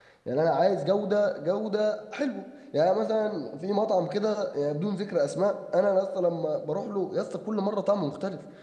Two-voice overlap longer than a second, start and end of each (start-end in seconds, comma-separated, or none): none